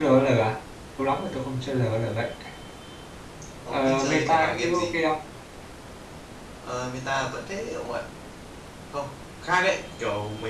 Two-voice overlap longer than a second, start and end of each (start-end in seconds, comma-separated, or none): 3.7-5.0